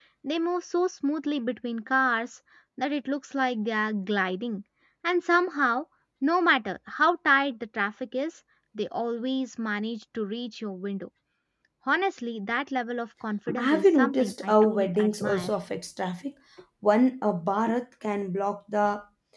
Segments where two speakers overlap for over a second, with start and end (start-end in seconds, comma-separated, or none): 13.6-15.5